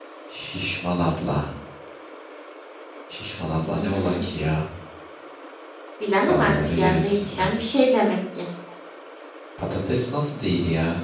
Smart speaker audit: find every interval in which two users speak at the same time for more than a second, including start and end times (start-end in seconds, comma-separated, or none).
6.3-7.5